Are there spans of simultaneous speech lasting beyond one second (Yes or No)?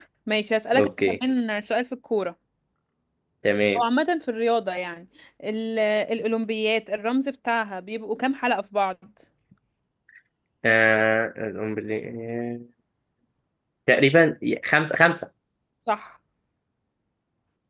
No